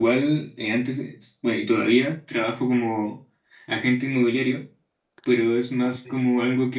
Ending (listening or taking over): listening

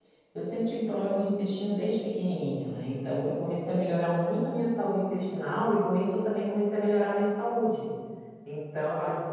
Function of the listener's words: taking over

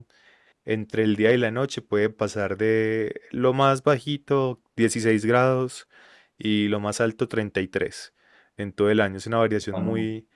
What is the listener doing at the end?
listening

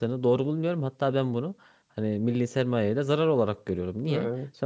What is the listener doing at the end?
listening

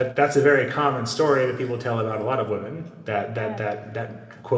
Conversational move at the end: listening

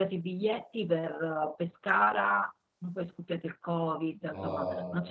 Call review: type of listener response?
listening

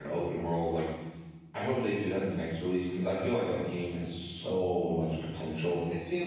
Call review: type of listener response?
taking over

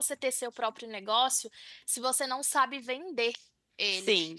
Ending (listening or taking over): listening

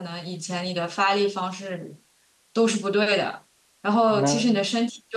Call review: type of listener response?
listening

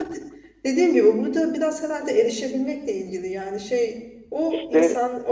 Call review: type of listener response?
listening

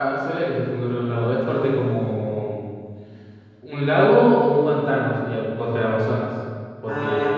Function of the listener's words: taking over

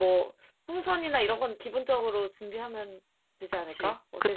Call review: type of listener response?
taking over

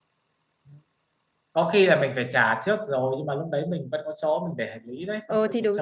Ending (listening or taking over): taking over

